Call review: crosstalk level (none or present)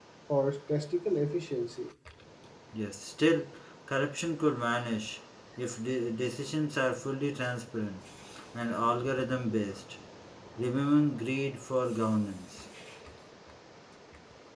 none